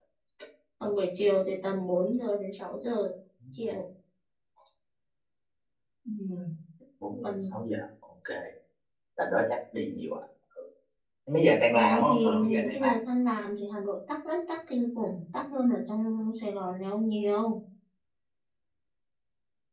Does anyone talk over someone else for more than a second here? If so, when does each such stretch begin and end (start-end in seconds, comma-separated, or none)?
11.7-13.0